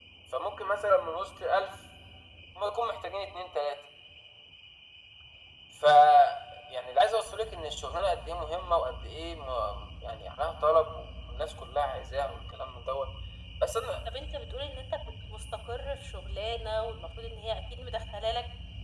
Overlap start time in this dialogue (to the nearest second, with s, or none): none